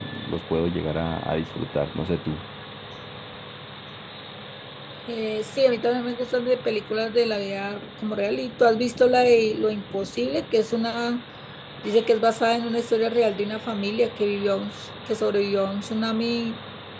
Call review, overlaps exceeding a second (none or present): none